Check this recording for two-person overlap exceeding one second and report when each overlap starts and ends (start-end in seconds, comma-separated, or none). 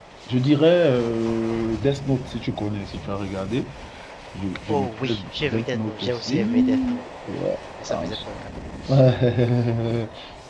4.7-7.3